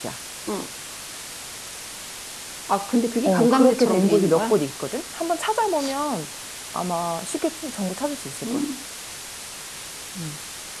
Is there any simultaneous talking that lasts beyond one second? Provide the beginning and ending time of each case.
3.2-4.6

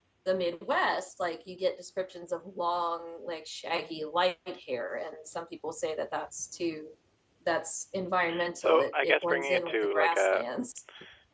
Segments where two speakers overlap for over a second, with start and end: 8.6-10.4

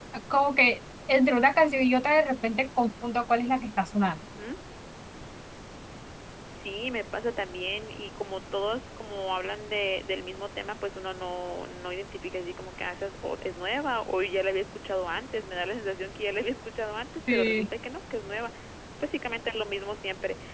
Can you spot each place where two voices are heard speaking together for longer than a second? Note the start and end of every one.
none

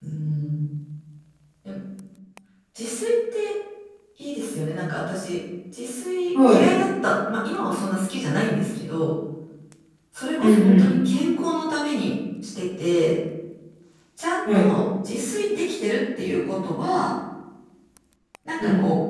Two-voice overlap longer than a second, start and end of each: none

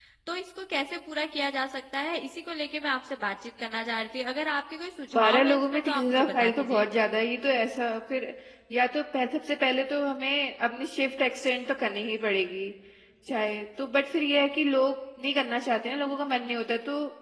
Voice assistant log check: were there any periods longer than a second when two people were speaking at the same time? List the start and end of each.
5.2-6.8

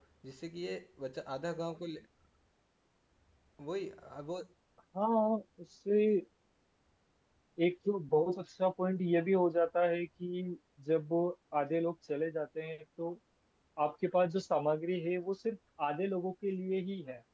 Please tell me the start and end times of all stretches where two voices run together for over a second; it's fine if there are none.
none

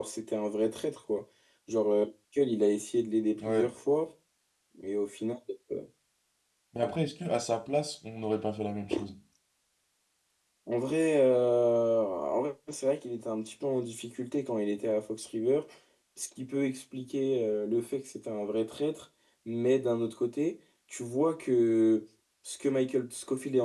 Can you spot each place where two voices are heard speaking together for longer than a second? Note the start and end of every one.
none

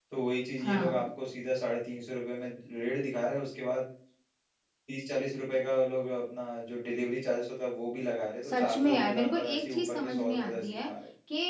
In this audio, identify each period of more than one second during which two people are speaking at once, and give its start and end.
8.4-10.9

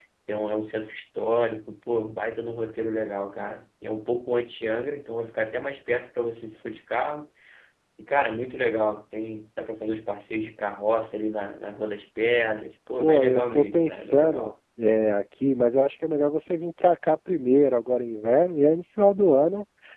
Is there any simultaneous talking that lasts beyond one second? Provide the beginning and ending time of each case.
13.0-14.5

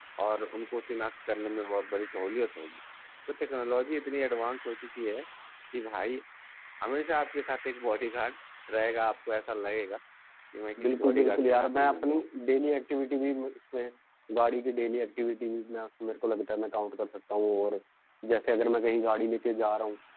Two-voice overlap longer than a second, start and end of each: 10.8-12.2

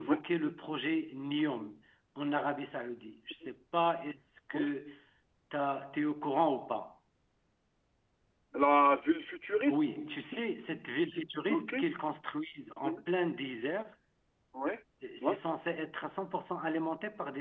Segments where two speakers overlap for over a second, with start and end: none

